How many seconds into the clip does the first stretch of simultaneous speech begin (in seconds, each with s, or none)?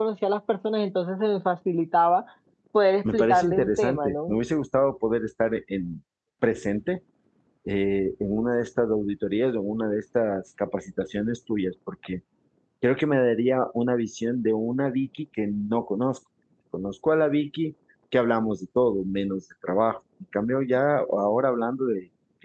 3.1 s